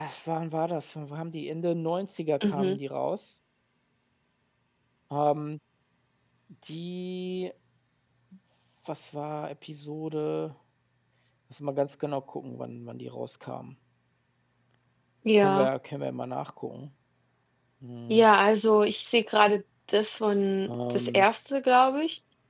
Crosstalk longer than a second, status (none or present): none